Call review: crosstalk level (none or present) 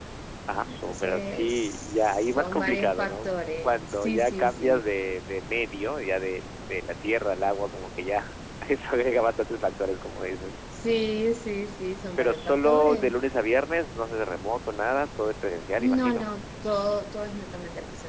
present